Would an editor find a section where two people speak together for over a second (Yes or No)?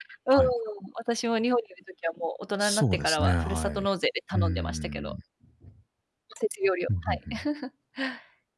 Yes